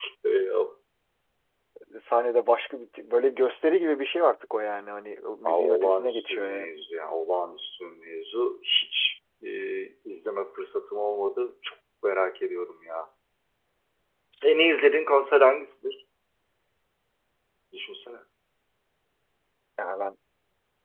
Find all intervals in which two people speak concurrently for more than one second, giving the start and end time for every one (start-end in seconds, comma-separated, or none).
5.5-6.7